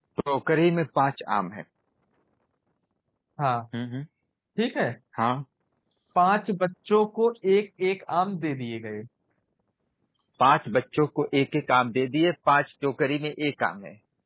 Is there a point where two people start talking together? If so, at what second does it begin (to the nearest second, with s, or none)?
none